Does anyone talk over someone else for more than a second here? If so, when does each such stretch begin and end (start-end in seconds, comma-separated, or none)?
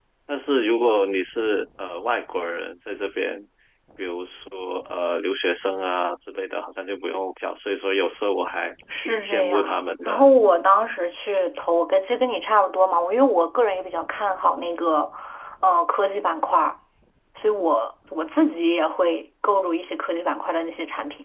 9.0-10.3